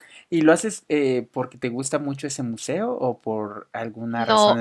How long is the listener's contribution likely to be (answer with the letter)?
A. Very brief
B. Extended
B